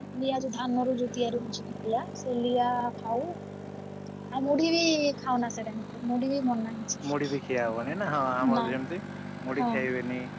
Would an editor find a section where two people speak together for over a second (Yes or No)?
No